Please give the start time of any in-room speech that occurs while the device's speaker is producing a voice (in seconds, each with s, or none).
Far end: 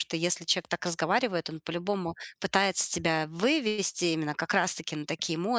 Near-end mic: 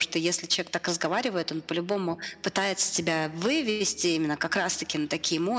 none